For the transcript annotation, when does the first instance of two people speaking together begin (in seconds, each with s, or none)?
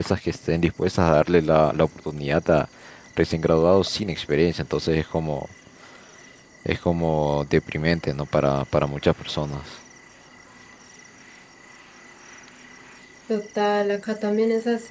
none